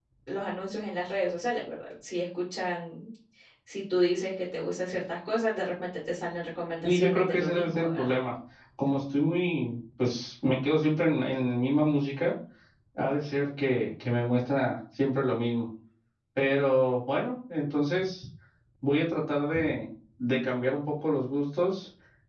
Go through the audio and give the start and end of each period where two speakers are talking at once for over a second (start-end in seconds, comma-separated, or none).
6.8-8.1